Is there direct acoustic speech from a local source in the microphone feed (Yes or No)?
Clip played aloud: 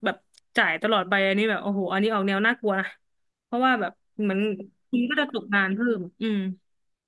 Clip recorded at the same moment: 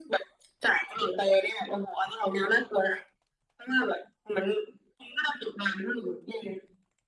No